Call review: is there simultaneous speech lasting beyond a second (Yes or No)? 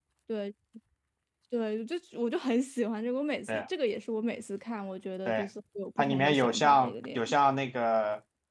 Yes